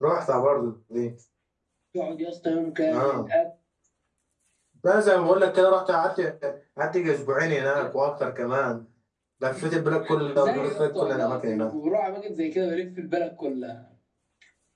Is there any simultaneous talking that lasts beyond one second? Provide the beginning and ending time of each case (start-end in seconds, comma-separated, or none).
10.3-11.7